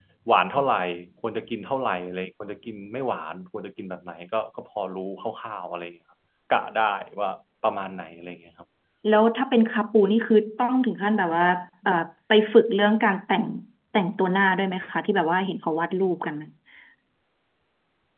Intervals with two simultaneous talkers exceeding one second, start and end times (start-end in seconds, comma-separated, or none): none